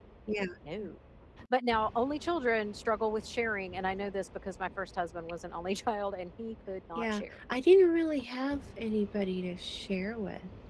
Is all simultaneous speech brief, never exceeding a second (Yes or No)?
Yes